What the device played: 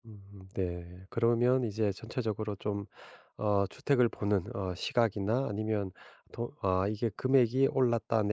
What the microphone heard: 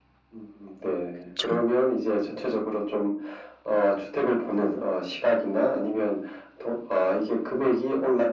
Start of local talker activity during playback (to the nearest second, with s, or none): 1 s